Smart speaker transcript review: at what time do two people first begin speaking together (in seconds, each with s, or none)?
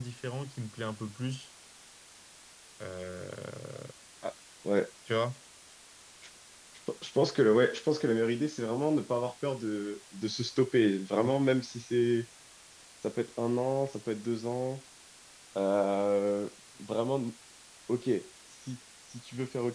none